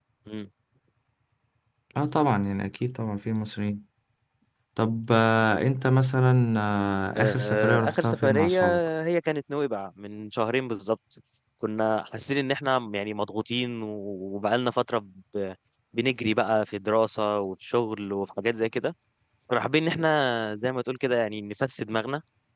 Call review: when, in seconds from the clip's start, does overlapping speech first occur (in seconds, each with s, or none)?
7.2 s